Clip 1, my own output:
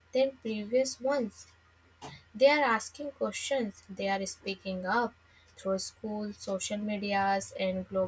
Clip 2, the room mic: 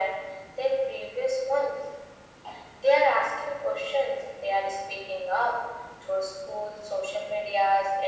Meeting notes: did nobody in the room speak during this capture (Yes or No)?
Yes